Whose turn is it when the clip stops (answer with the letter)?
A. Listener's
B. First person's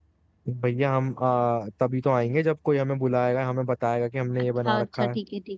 A